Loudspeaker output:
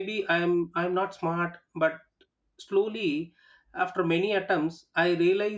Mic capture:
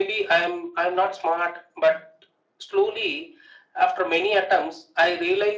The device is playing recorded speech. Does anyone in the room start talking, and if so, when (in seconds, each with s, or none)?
none